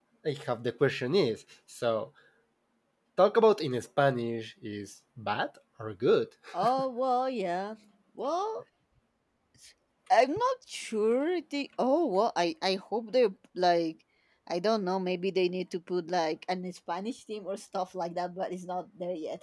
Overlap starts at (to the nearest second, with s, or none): none